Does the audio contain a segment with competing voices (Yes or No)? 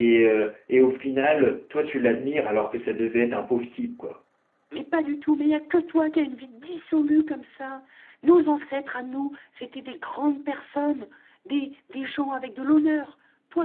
No